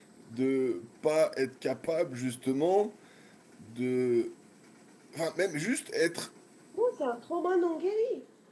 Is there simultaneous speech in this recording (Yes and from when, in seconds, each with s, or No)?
No